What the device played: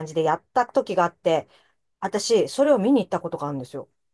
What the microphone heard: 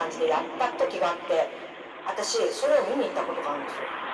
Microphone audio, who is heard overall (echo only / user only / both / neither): echo only